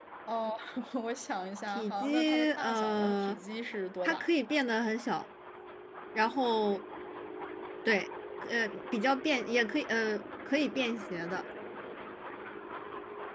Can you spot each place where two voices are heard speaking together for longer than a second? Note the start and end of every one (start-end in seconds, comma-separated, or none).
1.7-3.4